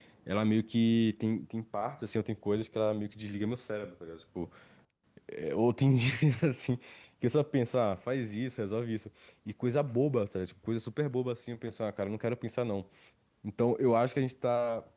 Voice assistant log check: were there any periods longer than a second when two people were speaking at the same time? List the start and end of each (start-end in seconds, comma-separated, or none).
none